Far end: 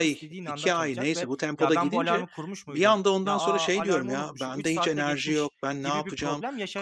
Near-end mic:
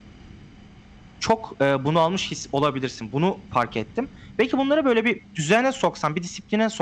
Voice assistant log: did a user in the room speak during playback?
Yes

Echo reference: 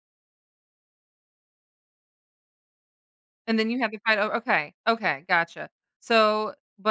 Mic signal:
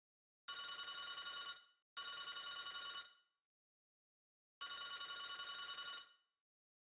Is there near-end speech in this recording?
No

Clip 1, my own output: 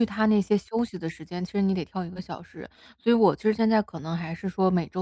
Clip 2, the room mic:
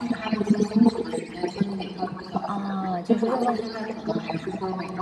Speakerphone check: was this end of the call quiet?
No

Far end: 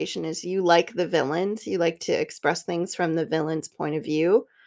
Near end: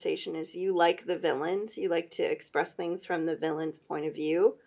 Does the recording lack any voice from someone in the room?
Yes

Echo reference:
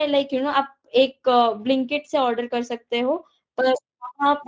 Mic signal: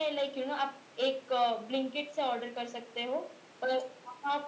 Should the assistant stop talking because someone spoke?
No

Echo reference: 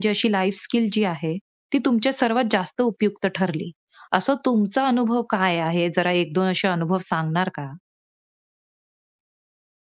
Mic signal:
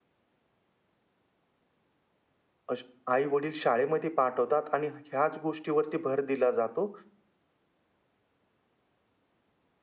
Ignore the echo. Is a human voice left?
Yes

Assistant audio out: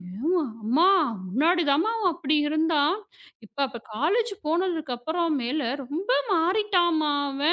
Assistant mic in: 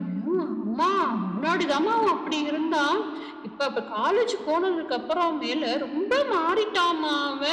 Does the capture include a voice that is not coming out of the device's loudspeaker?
No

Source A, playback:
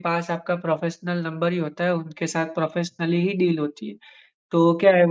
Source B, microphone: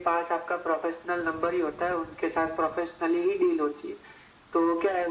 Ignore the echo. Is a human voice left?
No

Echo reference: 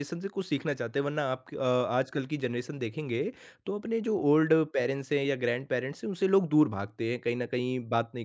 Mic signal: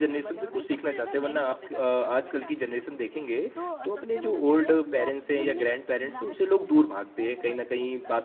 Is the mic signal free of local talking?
No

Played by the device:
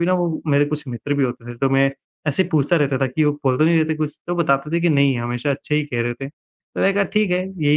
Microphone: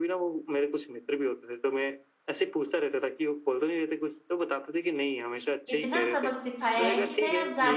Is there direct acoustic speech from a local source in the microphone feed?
Yes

